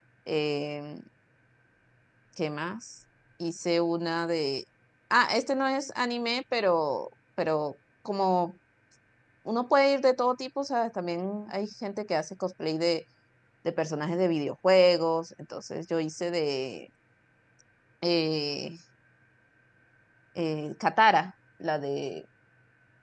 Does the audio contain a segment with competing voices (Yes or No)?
No